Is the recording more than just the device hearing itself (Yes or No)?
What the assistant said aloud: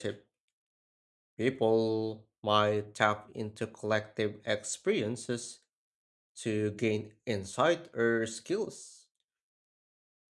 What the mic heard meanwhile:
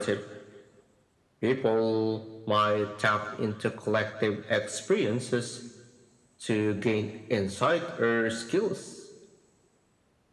No